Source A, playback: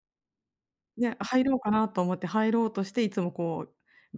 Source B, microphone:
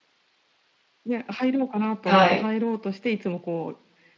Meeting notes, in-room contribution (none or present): present